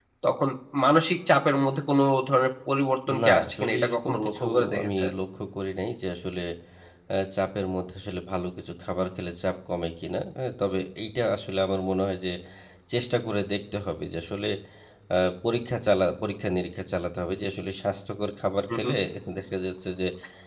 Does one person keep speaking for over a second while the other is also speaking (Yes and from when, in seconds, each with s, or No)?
Yes, from 3.1 s